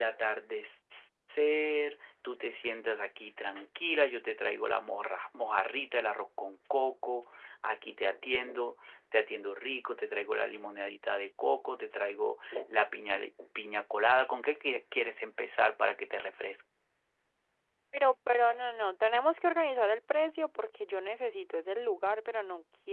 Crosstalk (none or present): none